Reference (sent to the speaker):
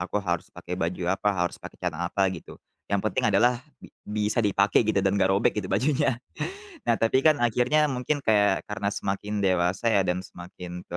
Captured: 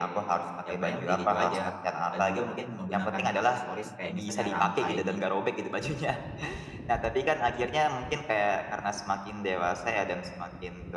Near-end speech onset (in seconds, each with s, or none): 0.6 s